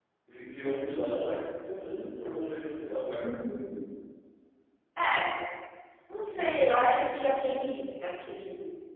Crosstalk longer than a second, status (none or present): none